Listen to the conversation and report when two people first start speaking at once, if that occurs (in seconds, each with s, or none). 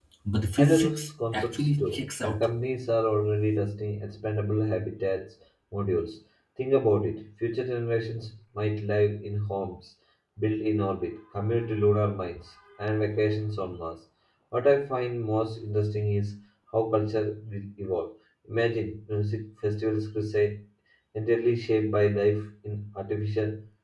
0.6 s